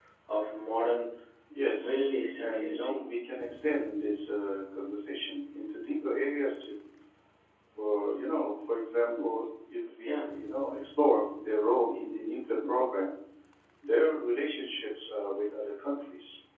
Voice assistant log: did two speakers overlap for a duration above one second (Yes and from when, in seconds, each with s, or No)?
Yes, from 1.8 s